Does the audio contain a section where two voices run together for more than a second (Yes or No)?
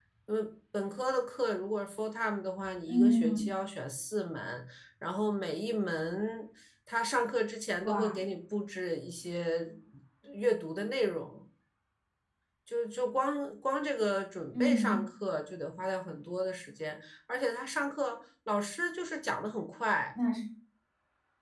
No